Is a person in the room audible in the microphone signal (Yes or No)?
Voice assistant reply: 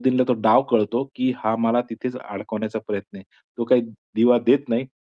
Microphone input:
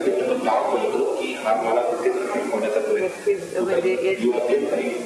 Yes